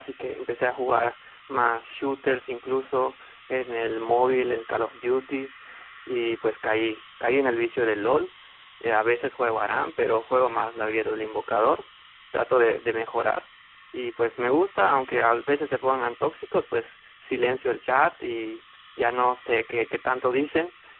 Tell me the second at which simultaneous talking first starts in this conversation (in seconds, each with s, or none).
none